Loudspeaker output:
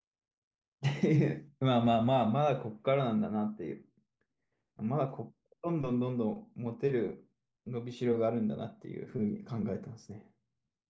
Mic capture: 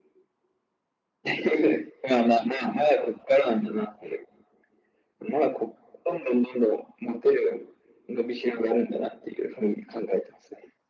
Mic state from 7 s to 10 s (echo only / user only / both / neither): echo only